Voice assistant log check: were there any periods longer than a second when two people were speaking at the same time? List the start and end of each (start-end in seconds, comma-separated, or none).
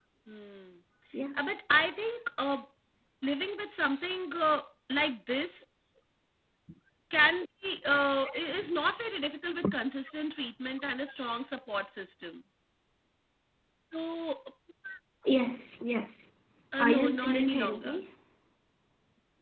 16.8-18.1